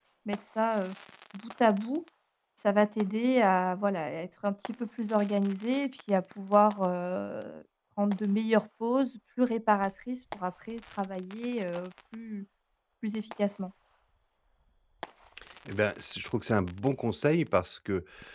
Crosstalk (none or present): none